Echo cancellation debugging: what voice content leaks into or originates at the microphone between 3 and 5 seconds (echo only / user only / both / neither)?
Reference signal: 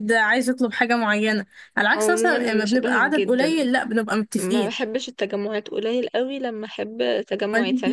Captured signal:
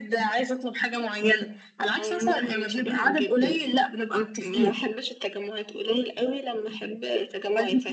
echo only